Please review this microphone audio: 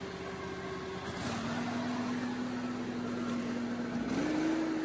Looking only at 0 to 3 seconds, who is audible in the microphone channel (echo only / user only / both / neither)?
neither